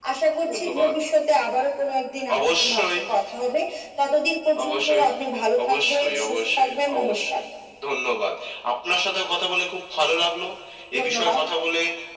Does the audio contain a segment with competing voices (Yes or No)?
Yes